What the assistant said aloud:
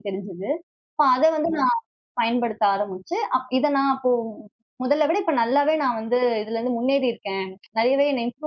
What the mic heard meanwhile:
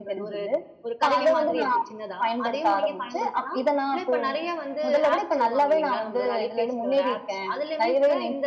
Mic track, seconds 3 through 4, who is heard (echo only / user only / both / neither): both